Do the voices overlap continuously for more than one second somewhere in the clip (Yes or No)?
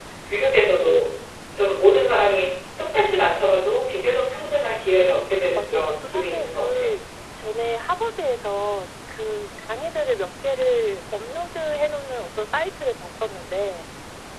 Yes